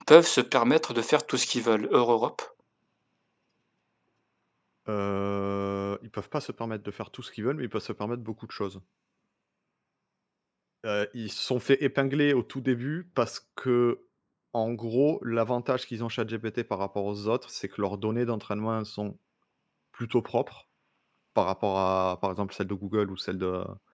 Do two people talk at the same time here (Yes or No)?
No